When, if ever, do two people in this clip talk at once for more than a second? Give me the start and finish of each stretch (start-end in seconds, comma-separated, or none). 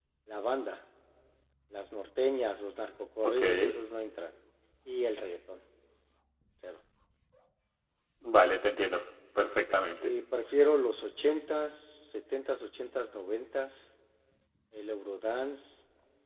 none